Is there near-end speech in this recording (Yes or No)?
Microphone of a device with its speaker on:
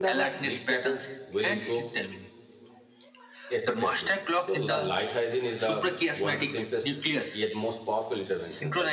Yes